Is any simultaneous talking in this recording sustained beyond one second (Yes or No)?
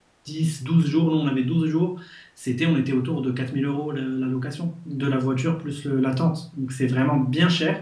No